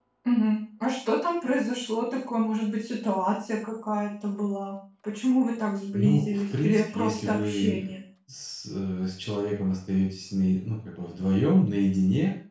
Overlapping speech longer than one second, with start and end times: 5.9-7.9

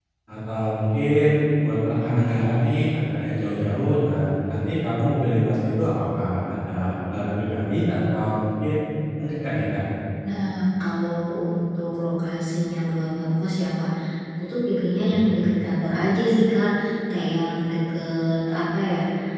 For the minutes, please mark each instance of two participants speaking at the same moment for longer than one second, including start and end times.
none

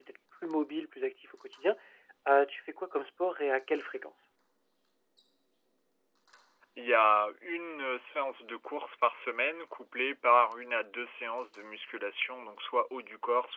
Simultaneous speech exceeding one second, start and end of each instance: none

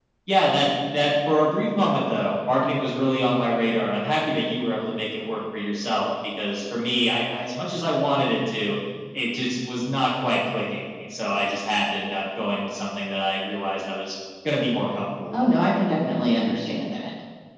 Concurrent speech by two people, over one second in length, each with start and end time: none

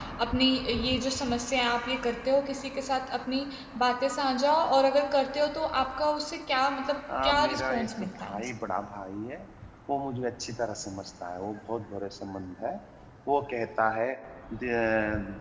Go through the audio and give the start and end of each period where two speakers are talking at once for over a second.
7.2-8.5

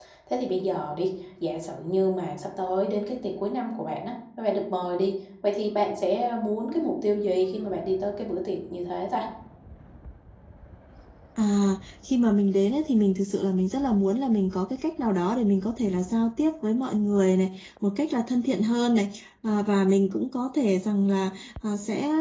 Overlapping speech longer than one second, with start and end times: none

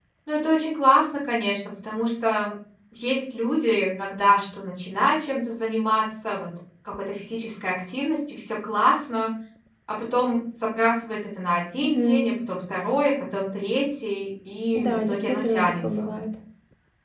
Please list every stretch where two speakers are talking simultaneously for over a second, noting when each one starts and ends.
14.8-16.2

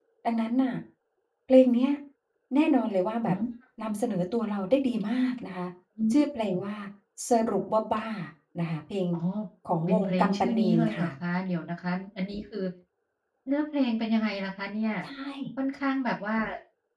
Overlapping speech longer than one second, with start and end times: 9.9-11.1

